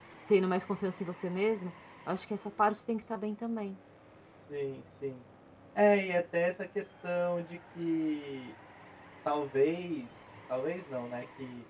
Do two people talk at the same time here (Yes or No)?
No